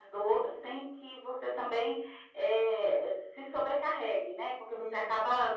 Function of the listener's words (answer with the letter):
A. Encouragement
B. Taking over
A